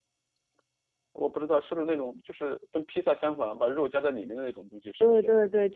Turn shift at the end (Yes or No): Yes